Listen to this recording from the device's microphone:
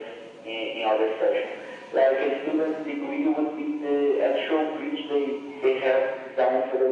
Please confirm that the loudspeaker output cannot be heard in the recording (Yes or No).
No